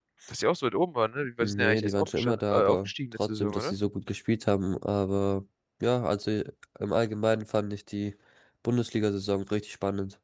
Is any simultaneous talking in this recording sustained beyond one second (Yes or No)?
Yes